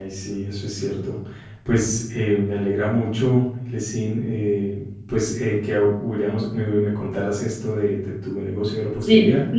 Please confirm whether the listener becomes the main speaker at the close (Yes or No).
Yes